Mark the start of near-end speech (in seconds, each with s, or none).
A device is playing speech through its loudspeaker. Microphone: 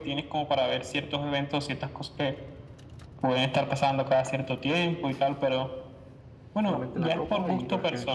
6.6 s